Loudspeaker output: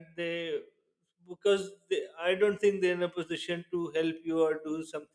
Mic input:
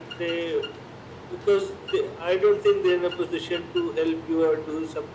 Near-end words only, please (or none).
none